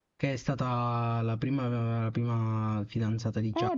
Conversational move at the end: taking over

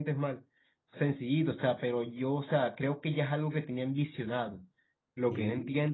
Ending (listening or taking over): listening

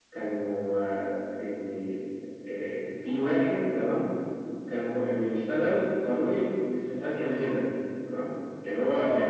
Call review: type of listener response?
listening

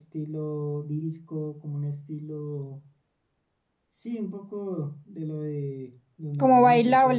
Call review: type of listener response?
listening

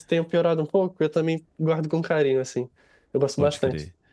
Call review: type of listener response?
taking over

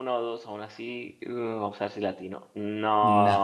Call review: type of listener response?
taking over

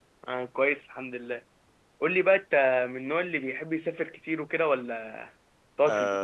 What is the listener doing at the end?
taking over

